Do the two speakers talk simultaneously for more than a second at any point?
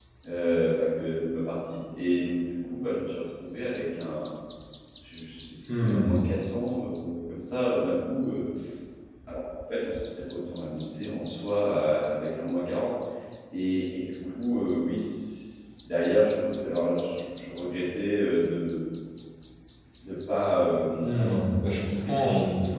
Yes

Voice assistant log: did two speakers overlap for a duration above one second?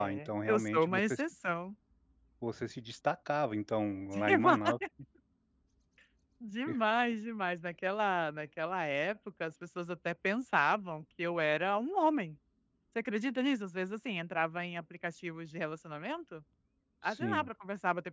Yes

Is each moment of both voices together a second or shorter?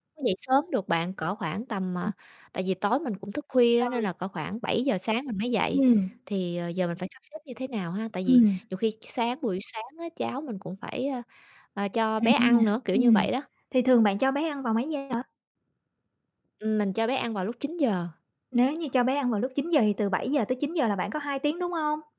Yes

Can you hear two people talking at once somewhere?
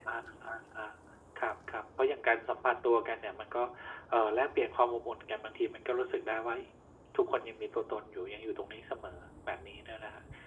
No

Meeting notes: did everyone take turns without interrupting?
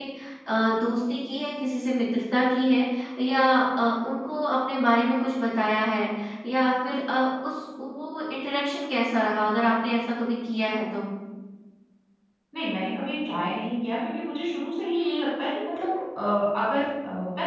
Yes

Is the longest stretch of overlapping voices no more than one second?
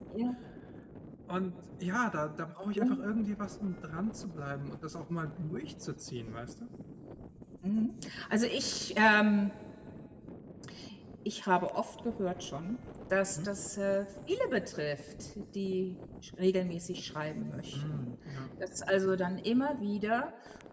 Yes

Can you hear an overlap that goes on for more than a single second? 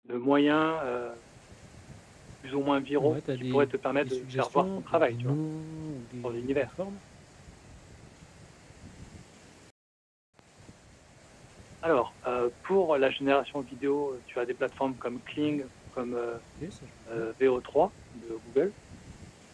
Yes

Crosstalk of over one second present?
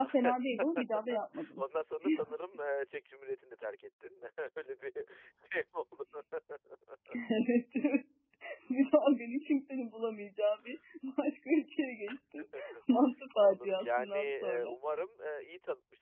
Yes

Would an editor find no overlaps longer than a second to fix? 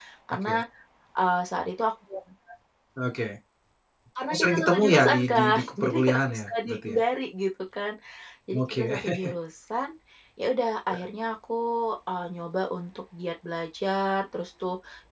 No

